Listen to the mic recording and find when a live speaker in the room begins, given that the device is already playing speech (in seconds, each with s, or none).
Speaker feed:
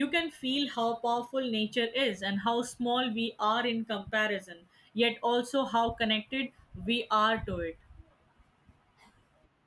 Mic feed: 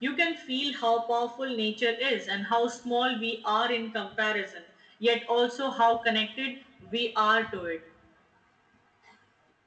none